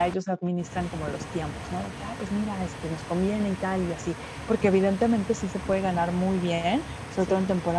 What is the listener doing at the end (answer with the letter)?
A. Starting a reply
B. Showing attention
B